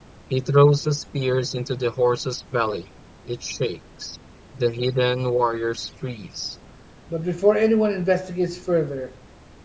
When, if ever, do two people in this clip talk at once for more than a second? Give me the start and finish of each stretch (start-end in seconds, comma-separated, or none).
none